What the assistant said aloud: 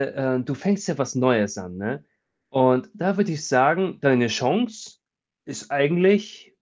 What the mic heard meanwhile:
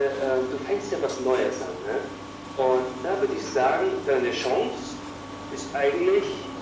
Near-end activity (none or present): none